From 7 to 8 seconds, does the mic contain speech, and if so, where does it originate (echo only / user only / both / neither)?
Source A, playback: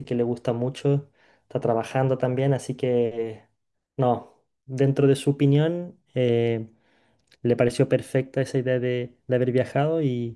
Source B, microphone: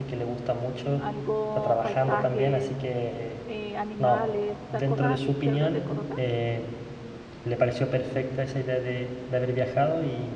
echo only